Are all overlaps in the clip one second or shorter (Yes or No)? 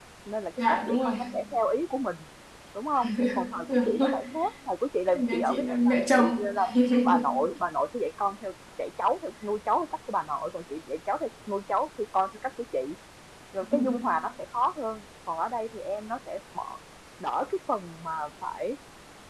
No